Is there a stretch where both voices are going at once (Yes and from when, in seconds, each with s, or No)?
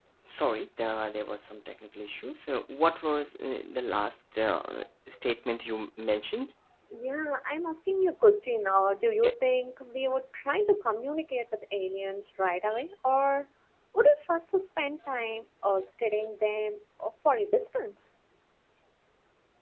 No